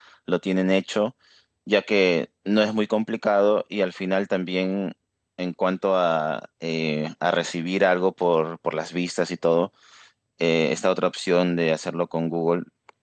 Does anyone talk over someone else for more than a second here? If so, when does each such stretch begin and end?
none

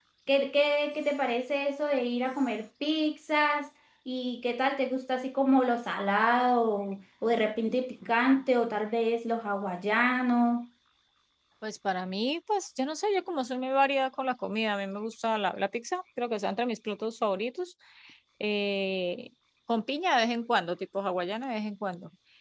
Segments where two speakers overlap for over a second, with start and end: none

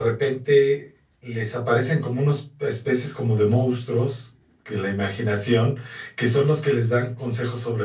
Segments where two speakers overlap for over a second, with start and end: none

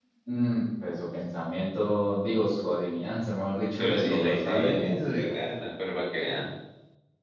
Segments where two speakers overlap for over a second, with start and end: 3.8-5.4

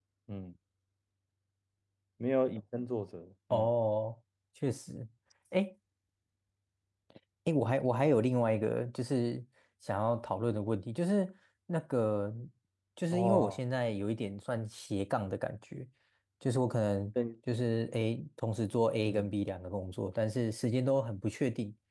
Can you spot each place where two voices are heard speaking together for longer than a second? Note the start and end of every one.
none

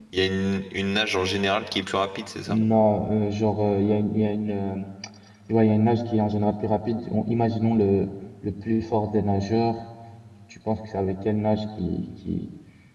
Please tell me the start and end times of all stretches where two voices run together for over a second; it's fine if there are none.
none

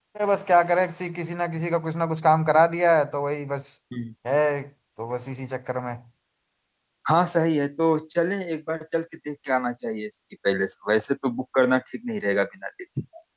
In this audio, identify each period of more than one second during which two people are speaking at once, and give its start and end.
none

